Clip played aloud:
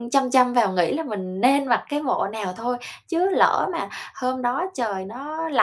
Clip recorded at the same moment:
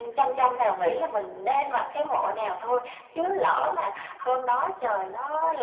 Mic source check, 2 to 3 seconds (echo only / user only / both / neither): echo only